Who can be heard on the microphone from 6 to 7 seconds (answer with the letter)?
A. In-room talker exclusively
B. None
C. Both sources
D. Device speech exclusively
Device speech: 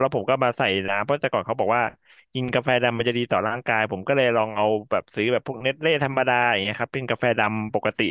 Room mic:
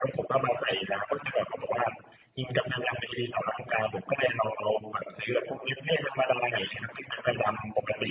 D